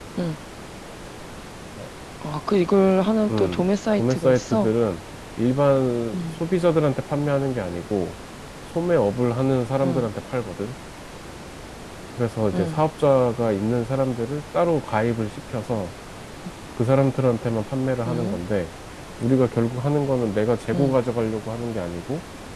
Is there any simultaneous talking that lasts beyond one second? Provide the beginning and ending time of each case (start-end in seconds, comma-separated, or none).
3.3-4.7